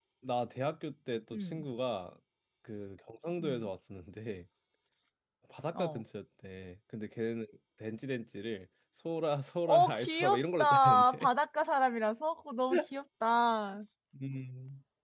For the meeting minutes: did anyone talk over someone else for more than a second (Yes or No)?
Yes